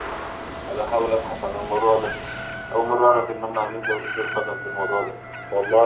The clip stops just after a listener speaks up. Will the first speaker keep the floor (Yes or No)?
Yes